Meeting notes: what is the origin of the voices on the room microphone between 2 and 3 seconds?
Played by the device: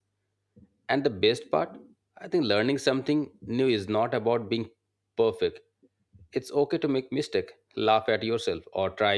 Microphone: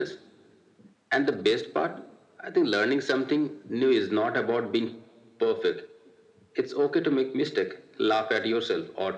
echo only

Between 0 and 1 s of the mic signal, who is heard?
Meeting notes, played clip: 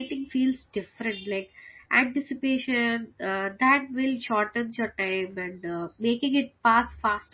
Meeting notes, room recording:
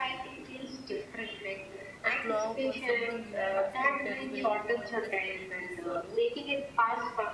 echo only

